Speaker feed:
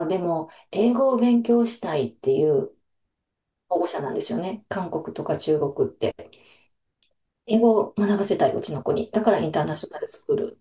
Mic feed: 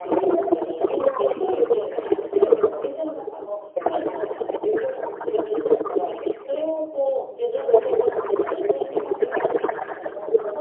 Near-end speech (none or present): present